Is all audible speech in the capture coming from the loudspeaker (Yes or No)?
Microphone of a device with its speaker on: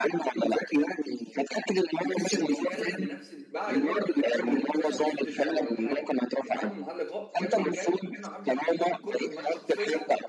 No